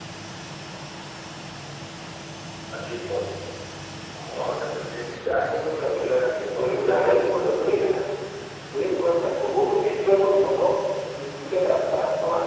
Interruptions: present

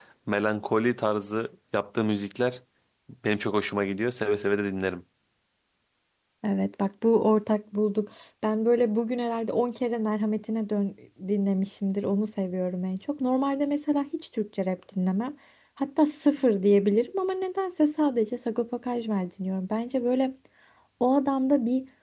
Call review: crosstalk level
none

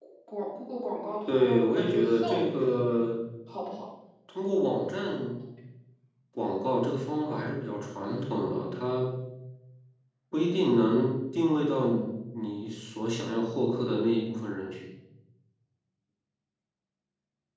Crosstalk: present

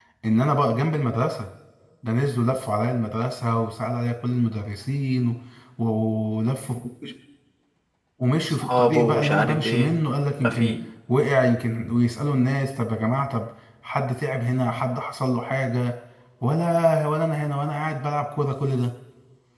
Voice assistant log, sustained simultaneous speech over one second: present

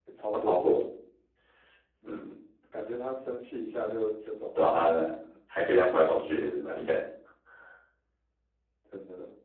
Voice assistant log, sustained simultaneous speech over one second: none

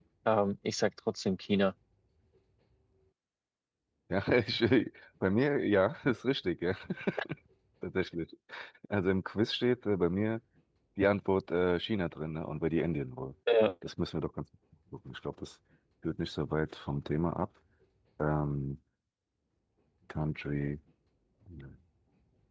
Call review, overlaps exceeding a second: none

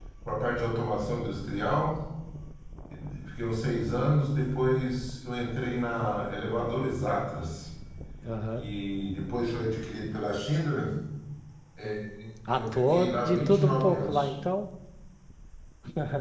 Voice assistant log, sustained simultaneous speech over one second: present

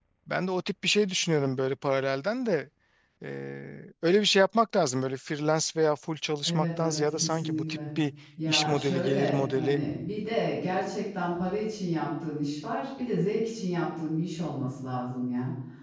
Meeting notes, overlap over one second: present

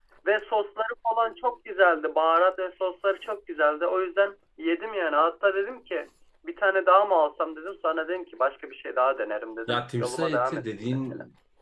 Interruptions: present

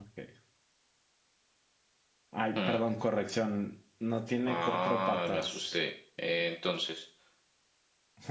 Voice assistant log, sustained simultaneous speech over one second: present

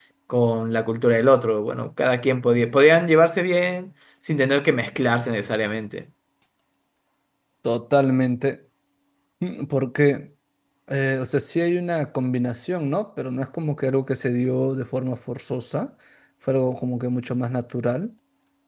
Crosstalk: none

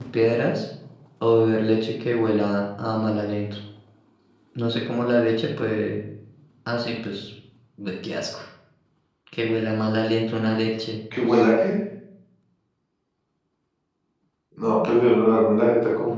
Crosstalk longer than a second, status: none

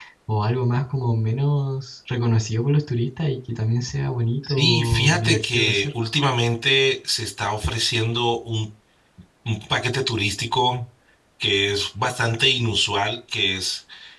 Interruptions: present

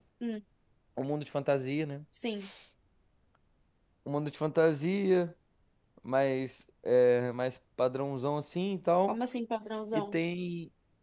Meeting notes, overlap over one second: none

